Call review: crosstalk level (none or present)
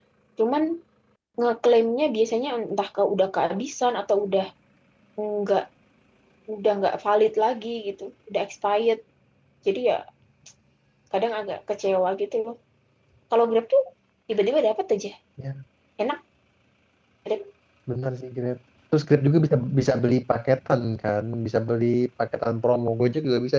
none